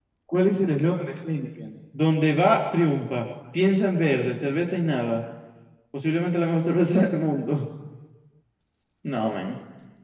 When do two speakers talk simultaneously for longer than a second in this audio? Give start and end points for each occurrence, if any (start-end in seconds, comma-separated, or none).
none